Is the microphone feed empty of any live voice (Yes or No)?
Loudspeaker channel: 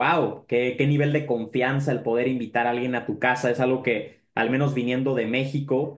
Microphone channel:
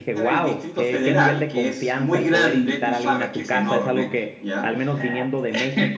No